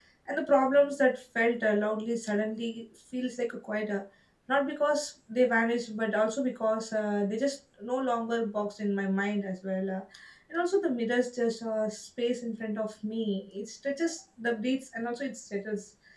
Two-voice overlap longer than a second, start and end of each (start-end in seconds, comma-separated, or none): none